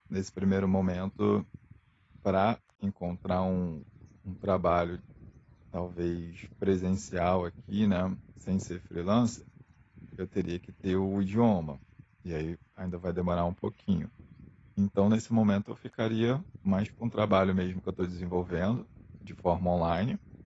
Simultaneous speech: No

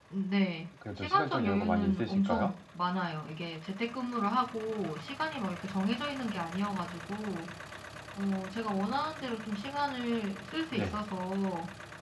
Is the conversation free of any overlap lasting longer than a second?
No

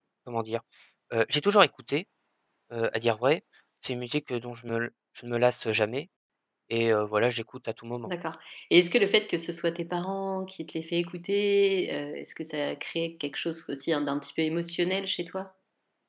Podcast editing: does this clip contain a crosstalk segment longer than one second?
No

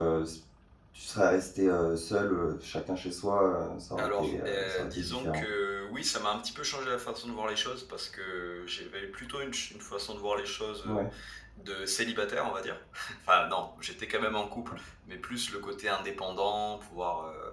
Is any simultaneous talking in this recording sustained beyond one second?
Yes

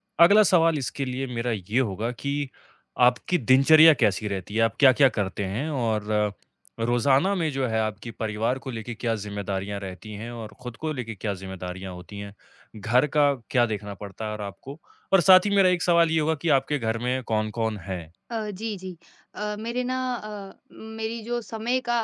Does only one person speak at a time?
Yes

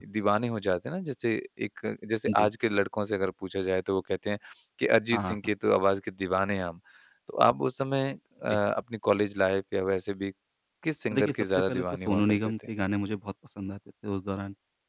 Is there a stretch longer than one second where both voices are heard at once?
Yes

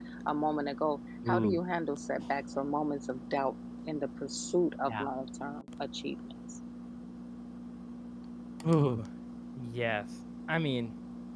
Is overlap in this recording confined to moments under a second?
Yes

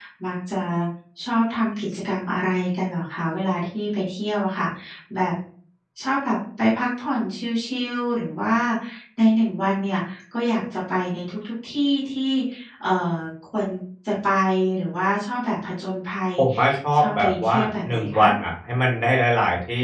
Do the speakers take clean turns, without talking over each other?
No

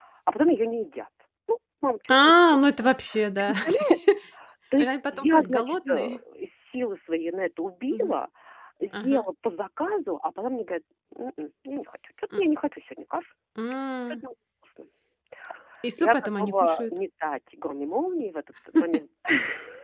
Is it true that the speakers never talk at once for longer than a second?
No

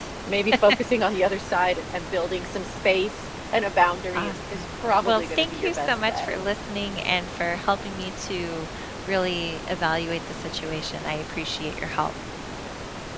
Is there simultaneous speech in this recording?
Yes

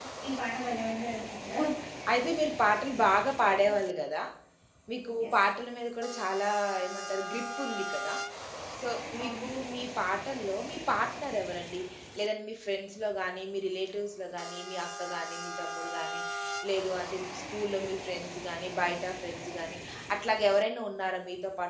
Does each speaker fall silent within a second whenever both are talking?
Yes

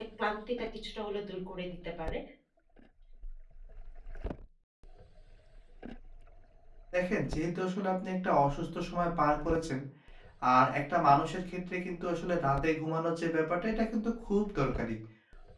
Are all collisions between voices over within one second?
Yes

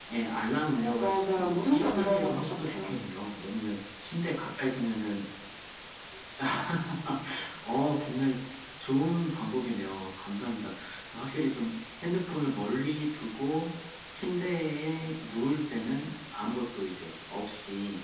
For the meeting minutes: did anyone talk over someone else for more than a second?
Yes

